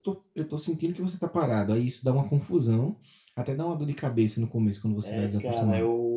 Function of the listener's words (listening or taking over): taking over